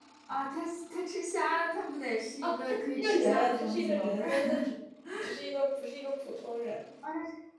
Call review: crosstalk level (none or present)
present